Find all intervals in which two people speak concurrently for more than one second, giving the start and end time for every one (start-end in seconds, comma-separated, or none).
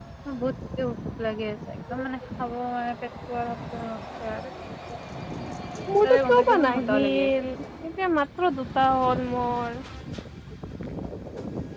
6.0-7.4